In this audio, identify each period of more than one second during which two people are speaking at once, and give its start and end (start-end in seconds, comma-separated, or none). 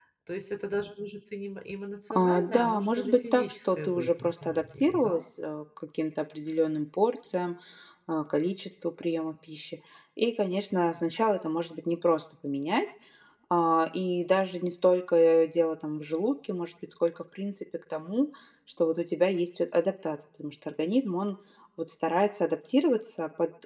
2.1-5.2